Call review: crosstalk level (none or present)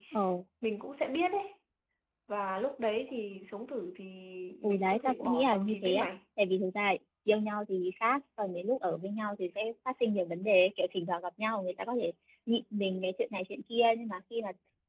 present